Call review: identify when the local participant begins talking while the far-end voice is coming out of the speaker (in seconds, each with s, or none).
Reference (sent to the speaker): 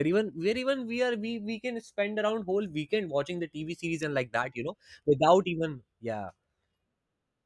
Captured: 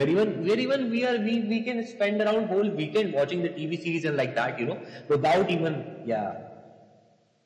none